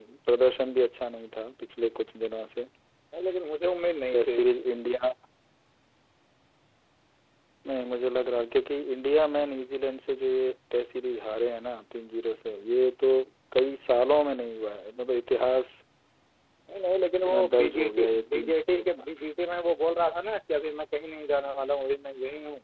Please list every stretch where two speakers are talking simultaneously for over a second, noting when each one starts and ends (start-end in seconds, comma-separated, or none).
17.3-19.1